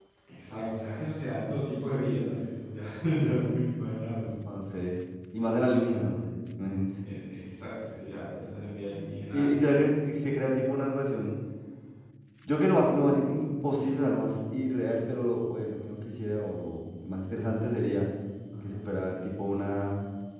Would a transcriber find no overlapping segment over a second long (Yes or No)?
Yes